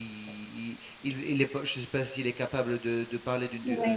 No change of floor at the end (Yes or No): Yes